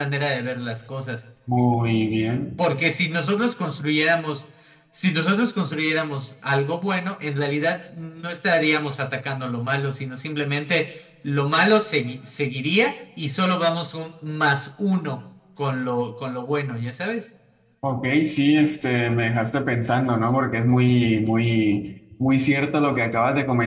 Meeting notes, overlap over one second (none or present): none